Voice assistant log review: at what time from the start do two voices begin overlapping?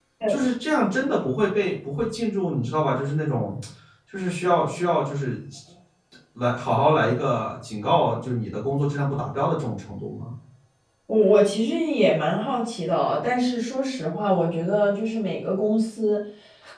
none

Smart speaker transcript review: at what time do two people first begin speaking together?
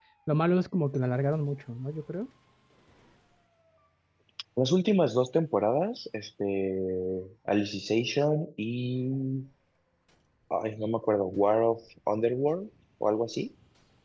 none

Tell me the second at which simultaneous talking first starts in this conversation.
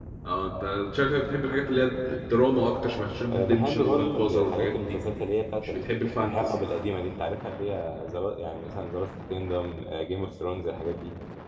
3.3 s

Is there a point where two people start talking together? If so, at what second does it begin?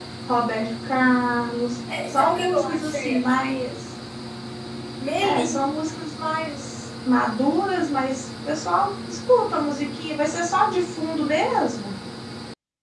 2.1 s

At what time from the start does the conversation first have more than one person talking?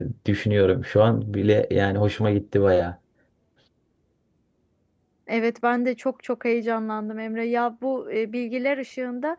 none

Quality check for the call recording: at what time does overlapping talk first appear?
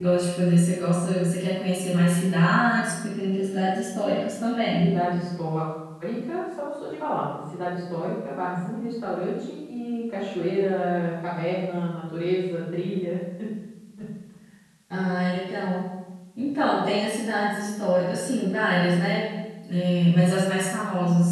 none

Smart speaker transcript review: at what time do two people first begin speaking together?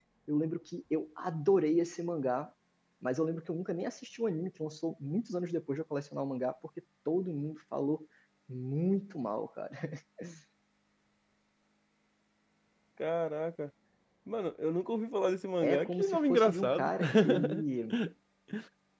15.6 s

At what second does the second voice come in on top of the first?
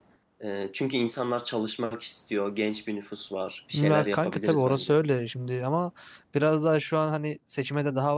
3.7 s

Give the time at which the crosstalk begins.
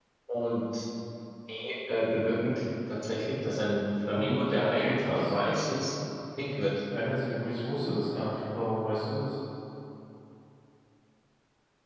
4.0 s

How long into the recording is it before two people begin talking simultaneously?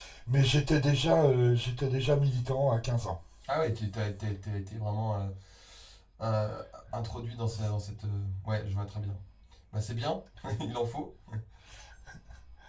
none

